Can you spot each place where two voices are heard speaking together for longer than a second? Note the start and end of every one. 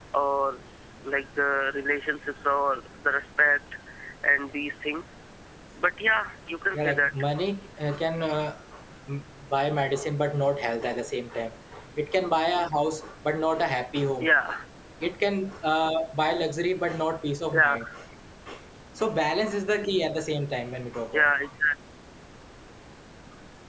none

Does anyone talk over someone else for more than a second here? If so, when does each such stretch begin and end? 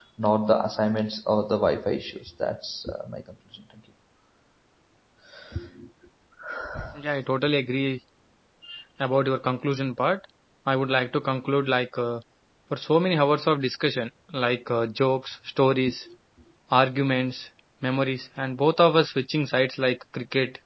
none

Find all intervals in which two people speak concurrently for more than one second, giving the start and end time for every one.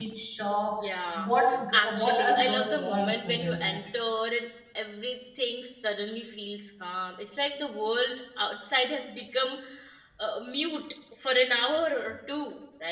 1.7-3.8

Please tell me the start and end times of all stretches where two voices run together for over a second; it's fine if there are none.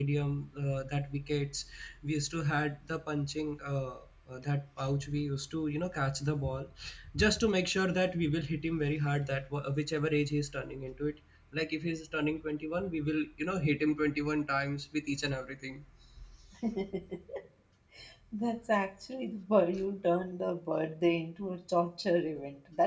none

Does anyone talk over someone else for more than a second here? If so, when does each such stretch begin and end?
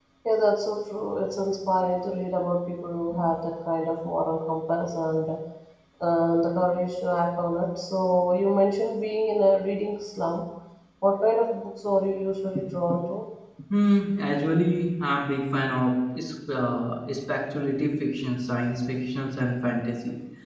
none

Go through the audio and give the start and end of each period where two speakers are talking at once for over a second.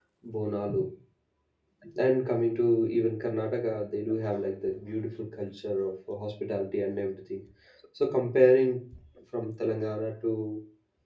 none

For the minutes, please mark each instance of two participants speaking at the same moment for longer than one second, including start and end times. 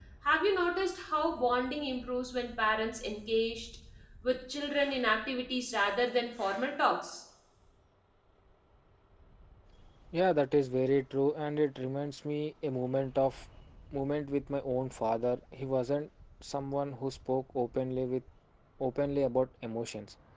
none

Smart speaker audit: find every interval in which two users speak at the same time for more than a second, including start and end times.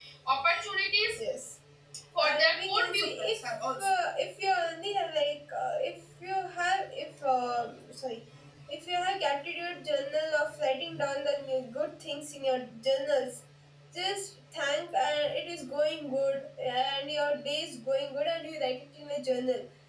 2.2-3.4

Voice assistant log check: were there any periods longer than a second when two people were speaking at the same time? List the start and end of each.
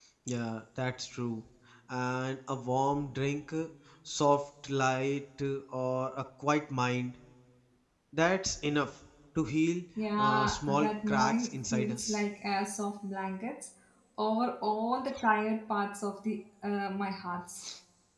10.2-12.2

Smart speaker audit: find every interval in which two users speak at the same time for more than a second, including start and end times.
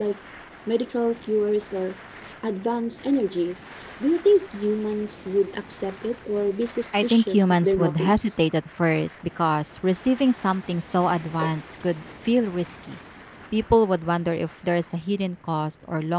6.9-8.3

